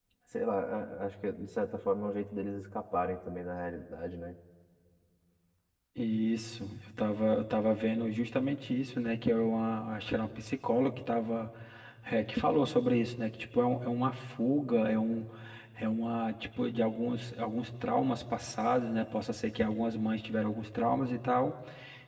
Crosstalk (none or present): none